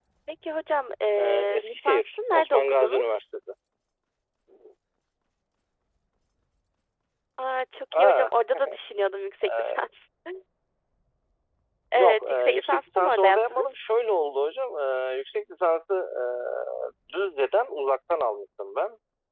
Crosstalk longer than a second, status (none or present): present